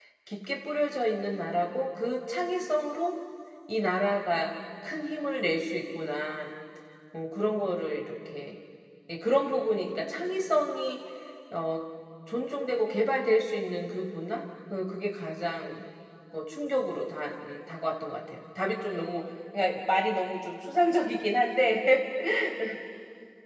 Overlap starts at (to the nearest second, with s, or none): none